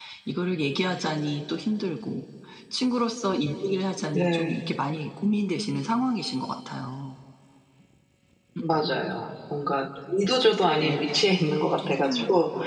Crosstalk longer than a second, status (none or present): none